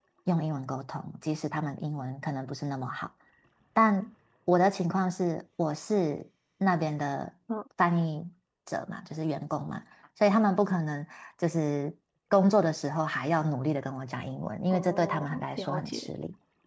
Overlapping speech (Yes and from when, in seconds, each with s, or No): Yes, from 14.7 s